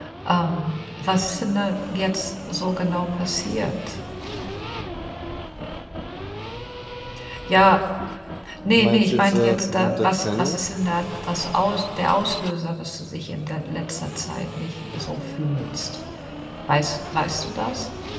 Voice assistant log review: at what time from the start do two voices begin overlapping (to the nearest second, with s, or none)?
9 s